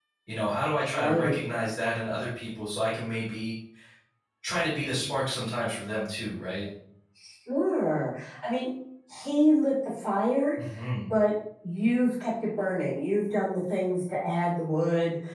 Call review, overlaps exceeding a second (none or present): none